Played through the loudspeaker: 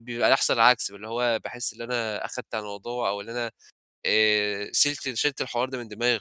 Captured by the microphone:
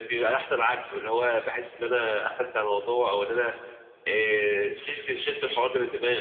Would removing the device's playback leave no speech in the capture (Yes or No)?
Yes